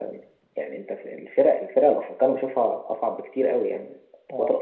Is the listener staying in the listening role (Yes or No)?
Yes